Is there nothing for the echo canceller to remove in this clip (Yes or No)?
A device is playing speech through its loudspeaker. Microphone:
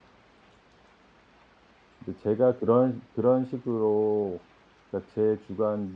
Yes